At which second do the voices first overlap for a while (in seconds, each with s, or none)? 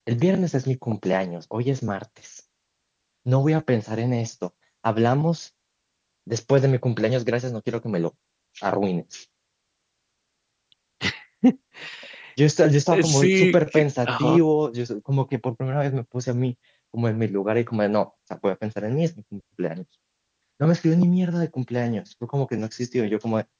12.9 s